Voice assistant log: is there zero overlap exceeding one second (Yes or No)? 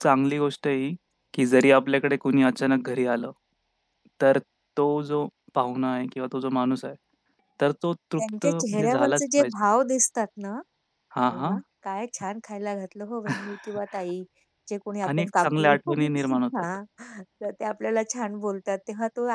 No